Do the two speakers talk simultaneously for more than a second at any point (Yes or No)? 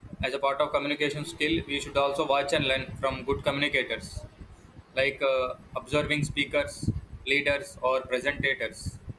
No